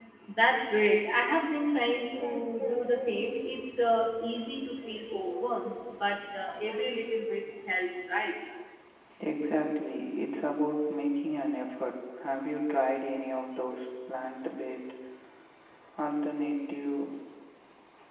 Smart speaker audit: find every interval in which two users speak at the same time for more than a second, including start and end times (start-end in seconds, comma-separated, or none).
none